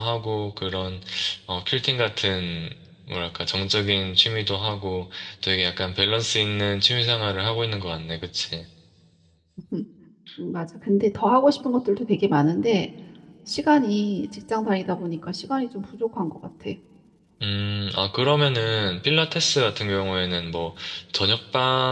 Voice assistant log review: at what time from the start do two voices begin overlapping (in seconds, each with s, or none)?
none